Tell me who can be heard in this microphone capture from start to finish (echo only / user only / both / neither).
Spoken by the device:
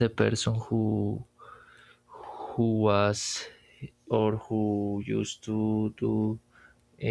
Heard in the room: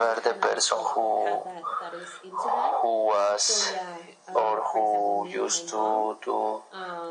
both